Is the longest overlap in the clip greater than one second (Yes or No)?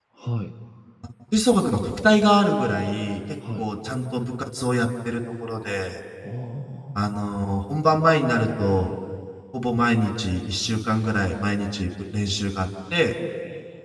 No